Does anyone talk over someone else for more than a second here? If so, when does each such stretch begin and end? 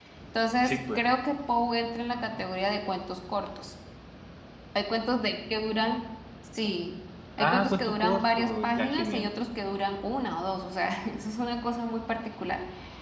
7.4-9.3

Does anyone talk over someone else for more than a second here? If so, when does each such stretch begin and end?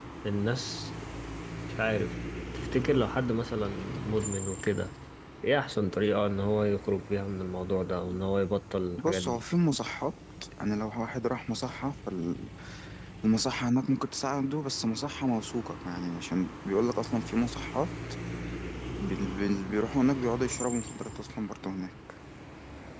none

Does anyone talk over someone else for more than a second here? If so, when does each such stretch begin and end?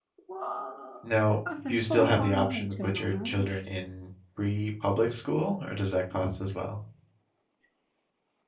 1.7-3.3

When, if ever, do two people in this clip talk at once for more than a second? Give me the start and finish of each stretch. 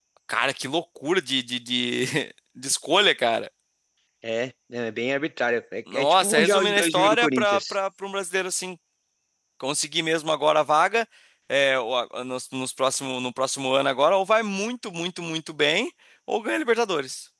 5.9-7.8

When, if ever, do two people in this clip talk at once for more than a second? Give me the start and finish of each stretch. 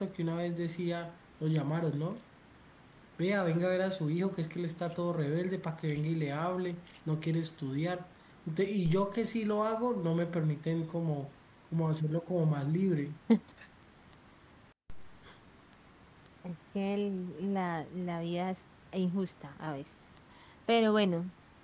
none

